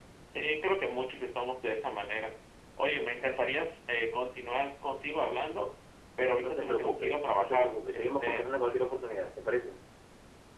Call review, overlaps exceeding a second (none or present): present